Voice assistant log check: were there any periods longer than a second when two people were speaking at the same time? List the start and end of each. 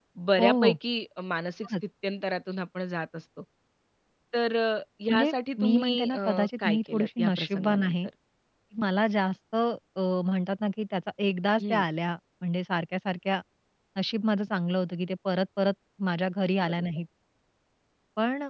5.1-7.9

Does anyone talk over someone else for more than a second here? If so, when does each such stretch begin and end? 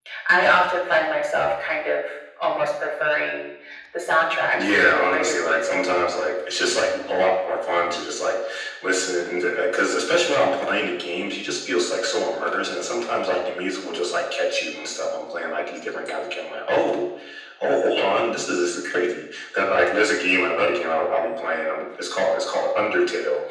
4.5-5.8

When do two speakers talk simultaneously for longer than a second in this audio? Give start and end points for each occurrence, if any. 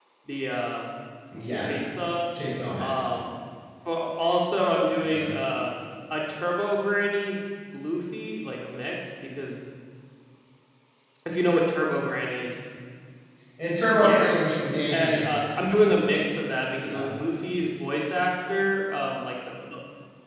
none

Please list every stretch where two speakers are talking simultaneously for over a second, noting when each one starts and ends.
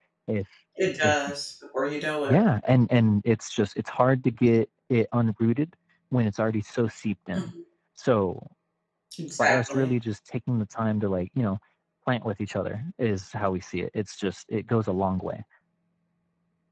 none

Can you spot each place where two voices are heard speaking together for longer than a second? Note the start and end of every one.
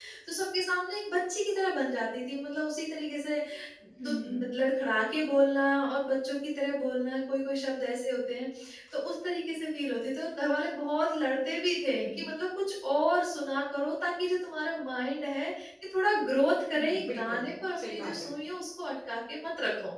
16.8-18.3

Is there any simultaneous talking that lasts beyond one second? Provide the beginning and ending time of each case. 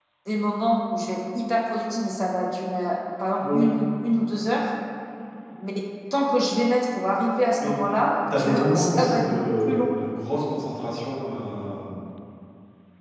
8.4-9.9

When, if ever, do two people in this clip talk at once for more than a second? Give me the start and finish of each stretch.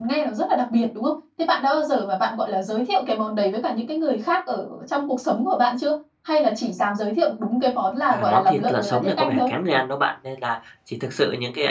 8.1-9.5

